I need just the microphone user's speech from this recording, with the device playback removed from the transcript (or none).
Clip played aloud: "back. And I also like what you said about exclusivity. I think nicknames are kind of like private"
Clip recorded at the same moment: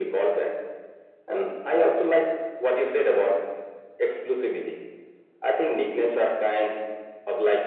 none